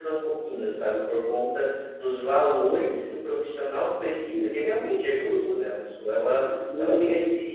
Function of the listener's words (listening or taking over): listening